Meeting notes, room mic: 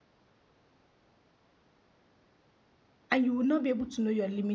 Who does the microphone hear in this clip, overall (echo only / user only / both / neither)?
user only